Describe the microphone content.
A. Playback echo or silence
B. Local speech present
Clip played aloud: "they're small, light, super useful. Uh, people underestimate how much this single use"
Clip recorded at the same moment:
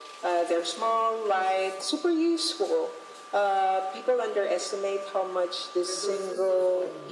B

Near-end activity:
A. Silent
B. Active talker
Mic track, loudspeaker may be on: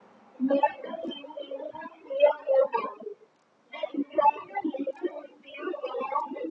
A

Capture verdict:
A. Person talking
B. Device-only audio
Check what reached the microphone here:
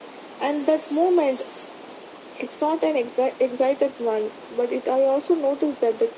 B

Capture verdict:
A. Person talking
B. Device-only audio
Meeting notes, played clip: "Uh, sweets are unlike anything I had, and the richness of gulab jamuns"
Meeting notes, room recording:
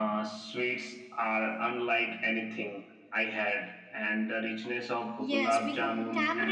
A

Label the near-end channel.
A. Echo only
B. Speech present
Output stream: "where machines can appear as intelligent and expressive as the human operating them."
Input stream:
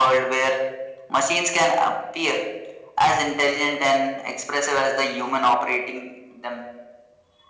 A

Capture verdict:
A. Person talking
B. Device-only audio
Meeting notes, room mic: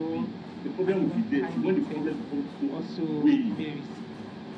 B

